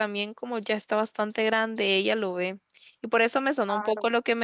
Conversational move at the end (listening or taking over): listening